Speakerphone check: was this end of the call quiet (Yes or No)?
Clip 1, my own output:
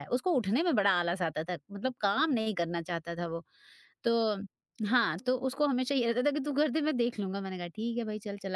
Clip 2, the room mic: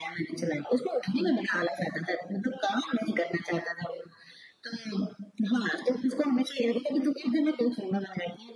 Yes